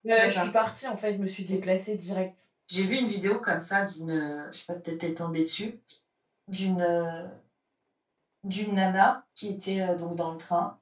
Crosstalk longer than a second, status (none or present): none